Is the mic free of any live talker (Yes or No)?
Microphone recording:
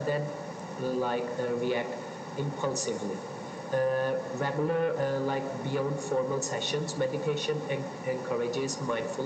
Yes